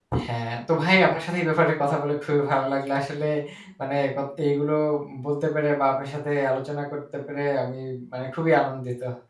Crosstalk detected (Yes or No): No